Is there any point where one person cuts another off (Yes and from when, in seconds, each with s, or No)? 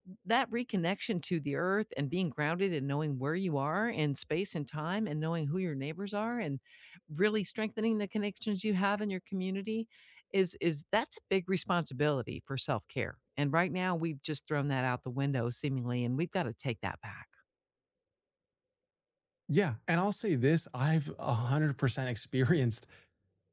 No